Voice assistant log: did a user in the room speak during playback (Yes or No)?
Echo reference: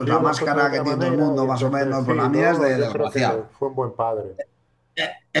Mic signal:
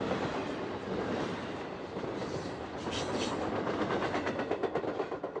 No